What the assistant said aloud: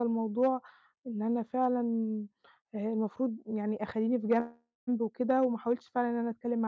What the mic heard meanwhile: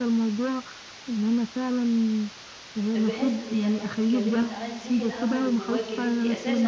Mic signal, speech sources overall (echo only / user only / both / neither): both